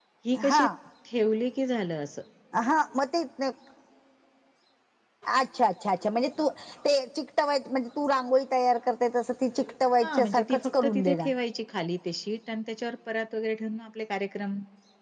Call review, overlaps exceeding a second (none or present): present